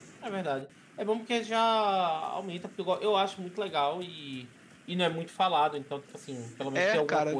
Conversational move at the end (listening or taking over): taking over